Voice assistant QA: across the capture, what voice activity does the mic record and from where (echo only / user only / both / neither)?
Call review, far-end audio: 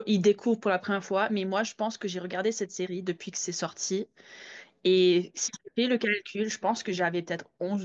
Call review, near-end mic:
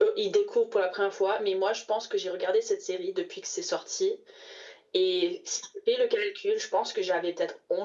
echo only